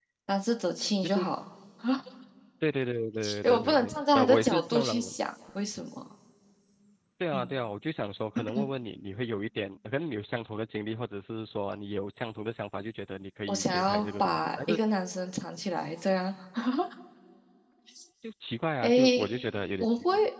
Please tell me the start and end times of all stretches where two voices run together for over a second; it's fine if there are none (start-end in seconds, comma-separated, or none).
3.4-5.1, 13.5-14.8